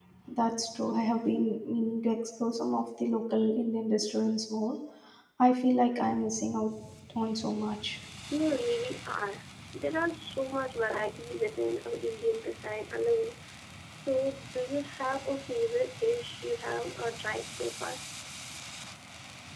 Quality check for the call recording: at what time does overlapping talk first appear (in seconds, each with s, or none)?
none